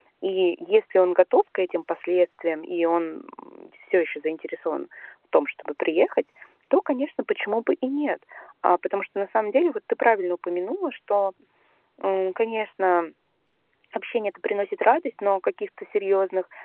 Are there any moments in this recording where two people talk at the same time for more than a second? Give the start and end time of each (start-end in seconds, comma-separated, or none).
none